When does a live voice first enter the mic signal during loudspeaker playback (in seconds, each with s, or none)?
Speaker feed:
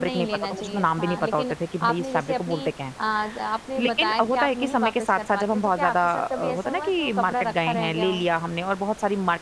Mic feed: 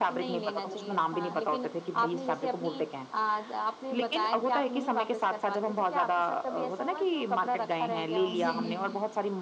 8.3 s